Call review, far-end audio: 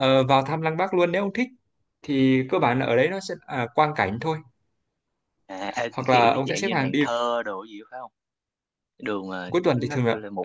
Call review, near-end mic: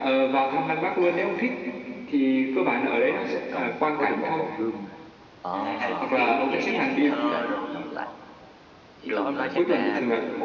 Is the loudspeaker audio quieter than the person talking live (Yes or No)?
No